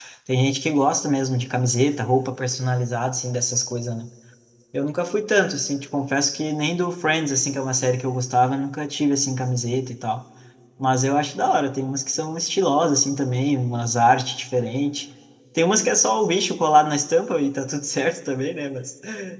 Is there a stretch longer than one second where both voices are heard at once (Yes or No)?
No